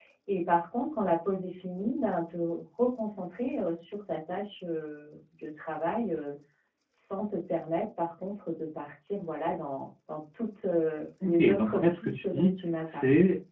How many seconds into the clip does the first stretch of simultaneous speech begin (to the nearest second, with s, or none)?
11 s